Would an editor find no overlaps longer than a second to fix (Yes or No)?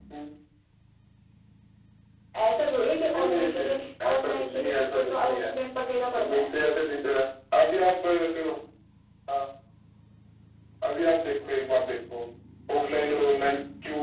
No